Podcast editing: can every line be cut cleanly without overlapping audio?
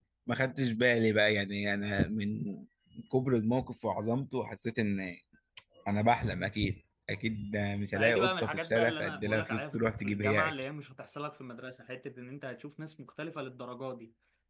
No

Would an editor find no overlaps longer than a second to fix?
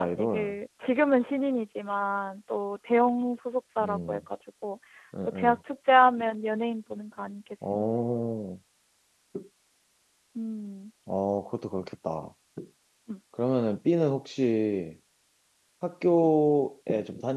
Yes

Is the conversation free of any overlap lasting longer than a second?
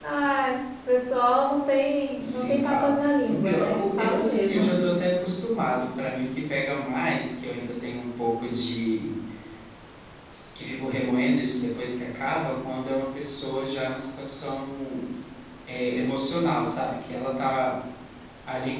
No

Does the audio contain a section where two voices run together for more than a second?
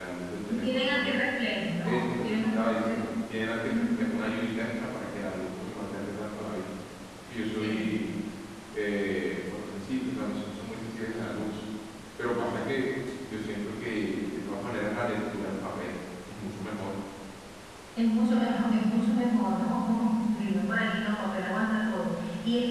Yes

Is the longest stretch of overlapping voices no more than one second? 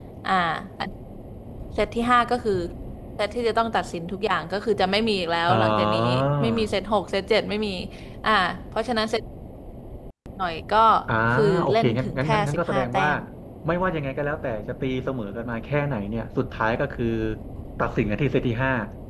No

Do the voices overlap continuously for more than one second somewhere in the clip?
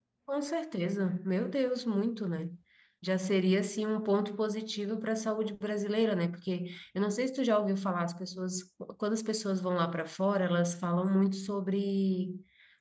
No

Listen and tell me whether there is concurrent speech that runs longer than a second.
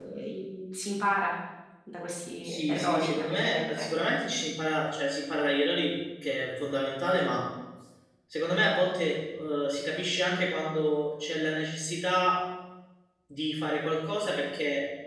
Yes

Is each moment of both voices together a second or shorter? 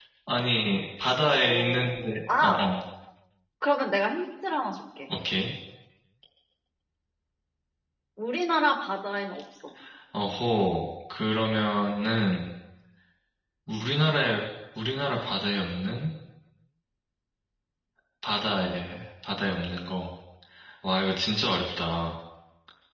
No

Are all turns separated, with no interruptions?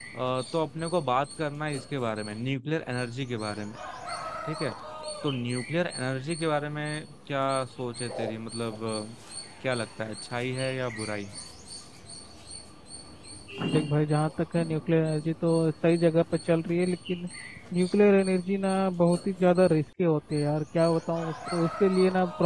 Yes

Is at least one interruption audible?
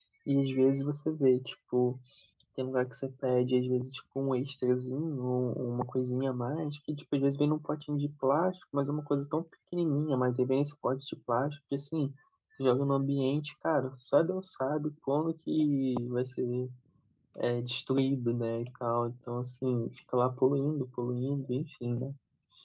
No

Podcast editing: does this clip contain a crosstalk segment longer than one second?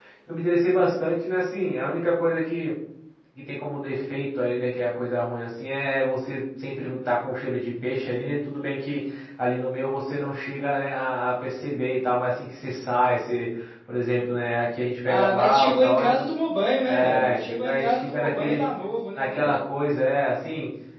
Yes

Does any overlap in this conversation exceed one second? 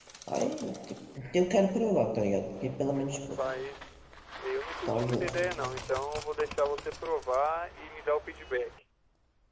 No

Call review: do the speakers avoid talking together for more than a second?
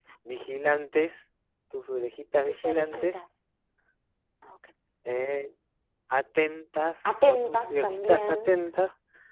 No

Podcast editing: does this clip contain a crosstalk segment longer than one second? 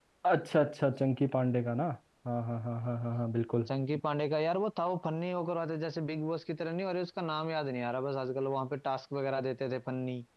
No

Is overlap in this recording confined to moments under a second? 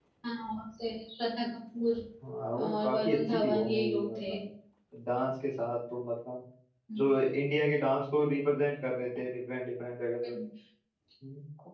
No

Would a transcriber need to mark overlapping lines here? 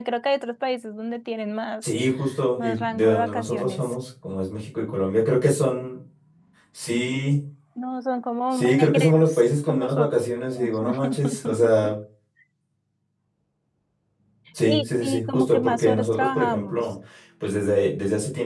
Yes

